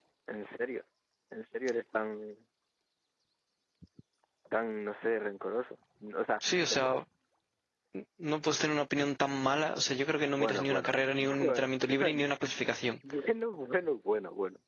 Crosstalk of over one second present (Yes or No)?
Yes